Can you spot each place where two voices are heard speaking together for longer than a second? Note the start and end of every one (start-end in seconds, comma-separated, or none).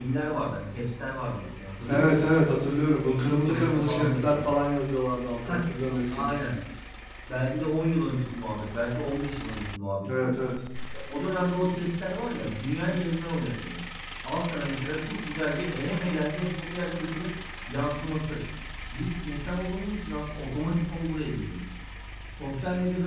3.0-4.5